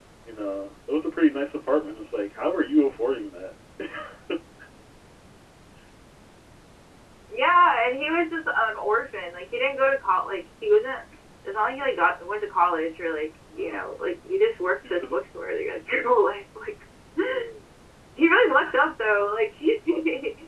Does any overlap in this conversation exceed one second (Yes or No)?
No